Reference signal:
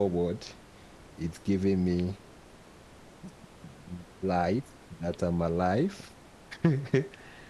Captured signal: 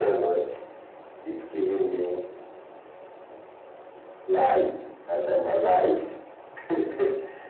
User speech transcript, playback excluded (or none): none